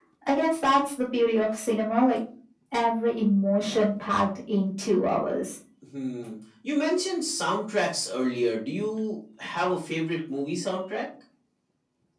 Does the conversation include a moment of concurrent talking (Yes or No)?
No